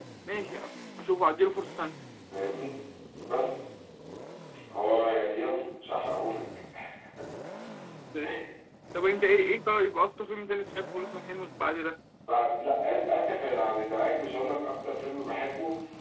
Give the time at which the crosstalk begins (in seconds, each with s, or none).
none